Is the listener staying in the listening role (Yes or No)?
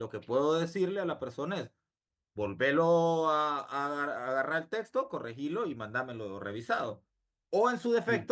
Yes